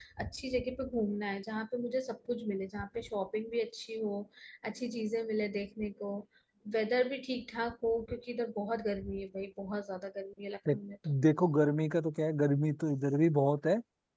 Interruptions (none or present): none